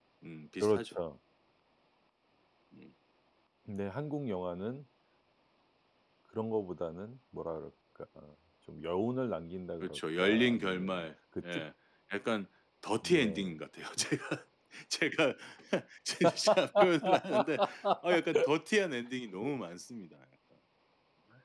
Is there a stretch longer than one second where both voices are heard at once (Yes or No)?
Yes